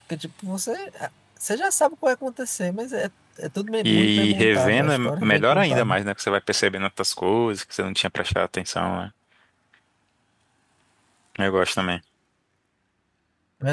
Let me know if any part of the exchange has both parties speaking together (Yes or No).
Yes